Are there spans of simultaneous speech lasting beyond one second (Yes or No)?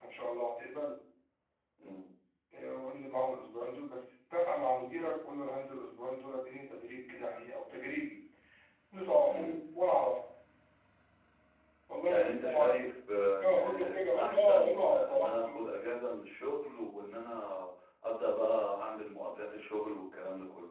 Yes